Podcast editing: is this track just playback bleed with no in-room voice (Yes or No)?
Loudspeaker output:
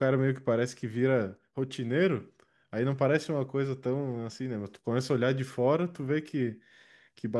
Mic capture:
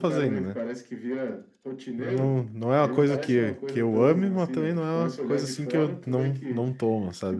No